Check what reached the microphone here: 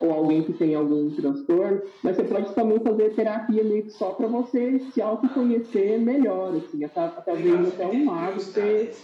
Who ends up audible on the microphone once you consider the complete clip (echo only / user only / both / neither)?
both